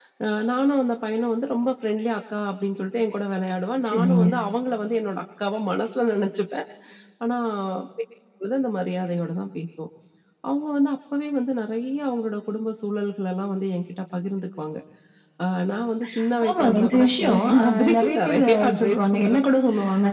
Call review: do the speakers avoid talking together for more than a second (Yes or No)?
No